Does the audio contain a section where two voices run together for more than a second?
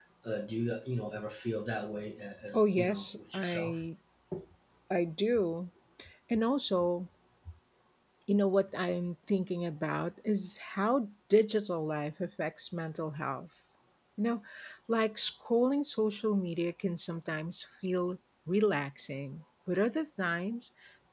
Yes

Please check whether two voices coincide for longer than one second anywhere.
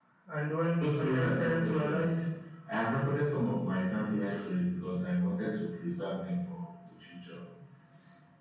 Yes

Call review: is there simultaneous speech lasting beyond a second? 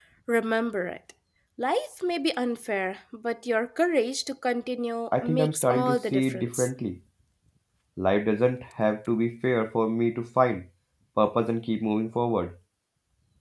Yes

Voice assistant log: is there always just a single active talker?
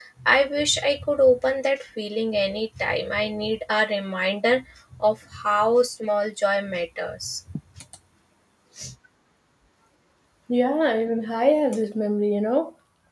Yes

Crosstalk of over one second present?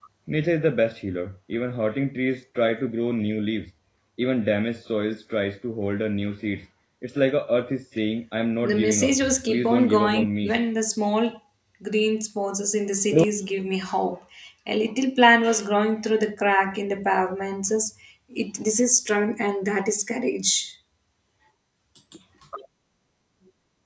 Yes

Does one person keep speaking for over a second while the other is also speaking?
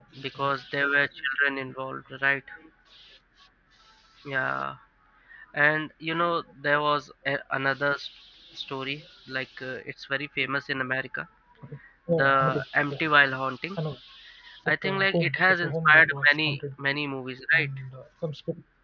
Yes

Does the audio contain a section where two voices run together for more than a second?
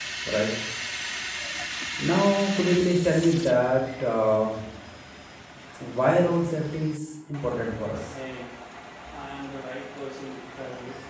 No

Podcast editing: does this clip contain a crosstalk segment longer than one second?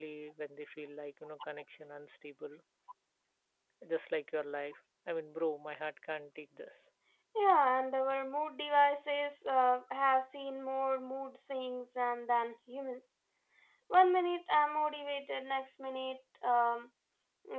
No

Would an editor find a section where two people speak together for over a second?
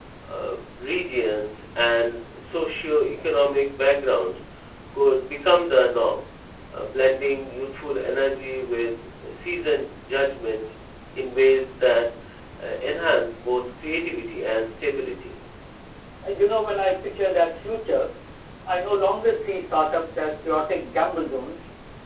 No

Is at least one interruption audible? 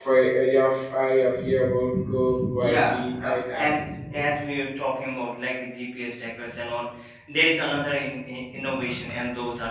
Yes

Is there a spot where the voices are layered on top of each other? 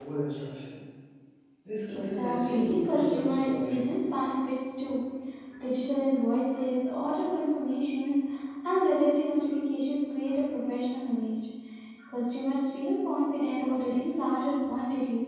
Yes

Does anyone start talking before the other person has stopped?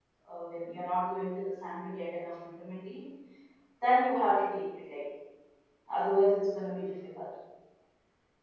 No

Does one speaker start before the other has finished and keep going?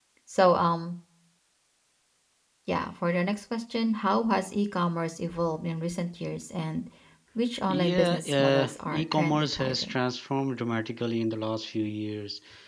Yes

